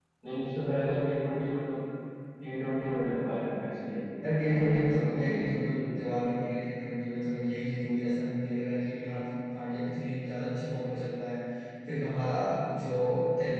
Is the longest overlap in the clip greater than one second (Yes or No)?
Yes